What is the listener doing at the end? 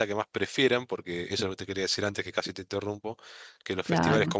listening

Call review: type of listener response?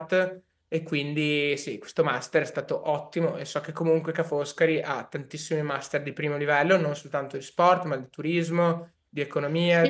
listening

